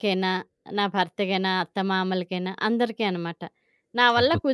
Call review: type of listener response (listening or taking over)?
listening